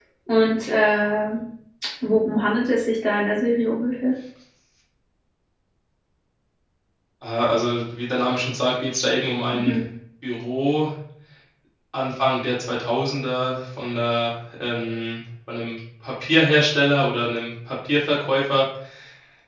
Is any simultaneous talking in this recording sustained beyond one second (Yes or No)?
No